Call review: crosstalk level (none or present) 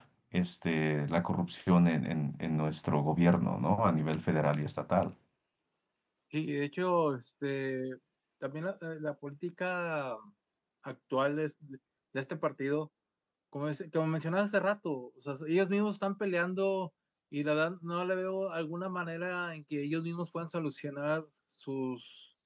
none